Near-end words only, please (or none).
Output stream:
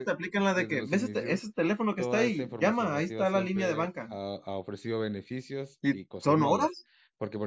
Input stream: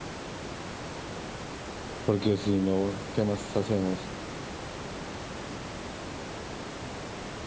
porque si no, ¿qué más hacemos?